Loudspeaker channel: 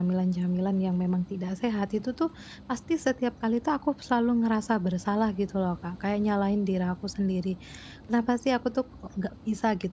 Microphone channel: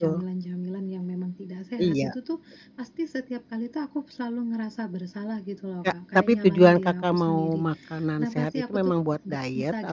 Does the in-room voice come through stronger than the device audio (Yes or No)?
Yes